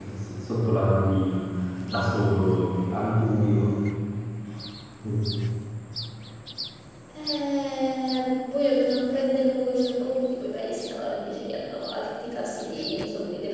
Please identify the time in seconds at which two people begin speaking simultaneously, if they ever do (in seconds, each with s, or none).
none